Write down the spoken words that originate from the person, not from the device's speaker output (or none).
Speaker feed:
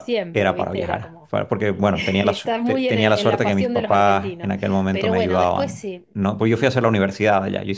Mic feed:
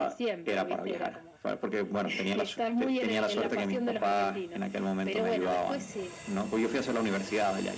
none